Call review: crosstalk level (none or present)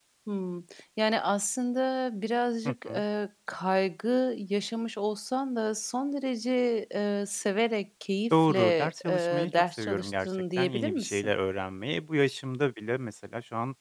present